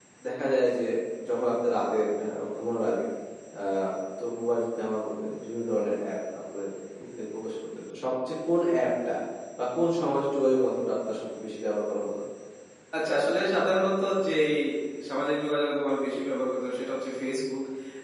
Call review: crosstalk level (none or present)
none